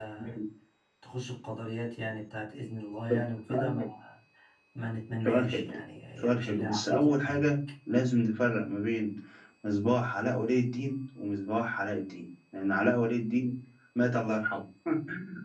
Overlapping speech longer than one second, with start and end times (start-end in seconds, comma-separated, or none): 6.2-7.4